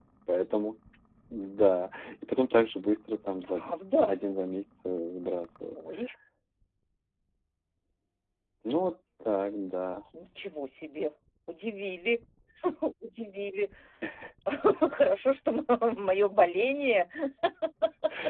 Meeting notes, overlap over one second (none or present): none